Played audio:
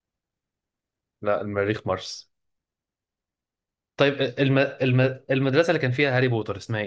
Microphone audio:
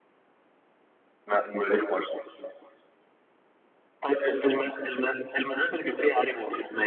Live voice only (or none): none